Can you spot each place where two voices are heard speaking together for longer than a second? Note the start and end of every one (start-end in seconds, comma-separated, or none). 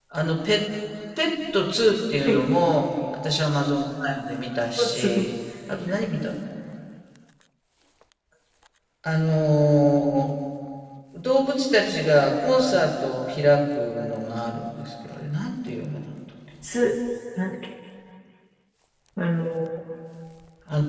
none